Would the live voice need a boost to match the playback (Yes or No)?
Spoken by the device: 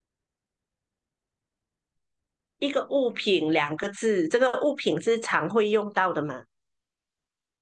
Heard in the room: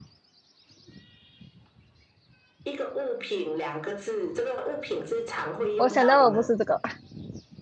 No